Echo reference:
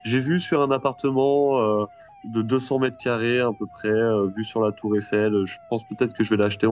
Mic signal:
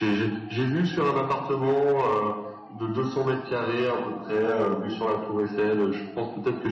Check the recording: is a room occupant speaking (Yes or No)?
No